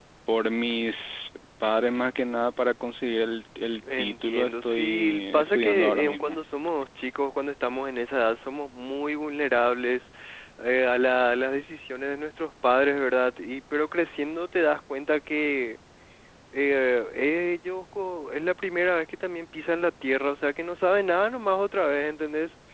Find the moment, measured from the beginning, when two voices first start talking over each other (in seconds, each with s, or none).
3.9 s